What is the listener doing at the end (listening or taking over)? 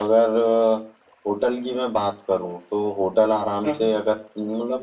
listening